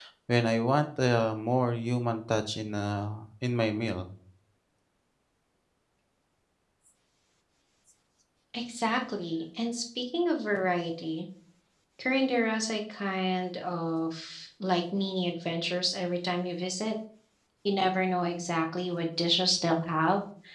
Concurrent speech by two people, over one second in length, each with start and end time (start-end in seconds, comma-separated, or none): none